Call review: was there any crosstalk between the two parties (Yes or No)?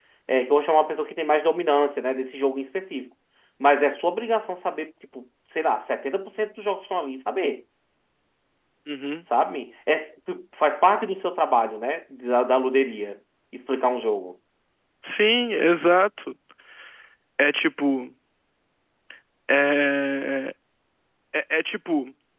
No